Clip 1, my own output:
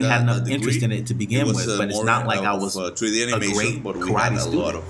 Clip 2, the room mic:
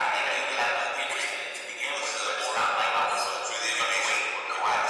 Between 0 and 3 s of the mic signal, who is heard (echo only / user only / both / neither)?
echo only